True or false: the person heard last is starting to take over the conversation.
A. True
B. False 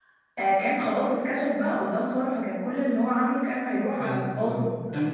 A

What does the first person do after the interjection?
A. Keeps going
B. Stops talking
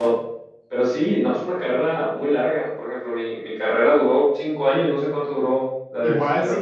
B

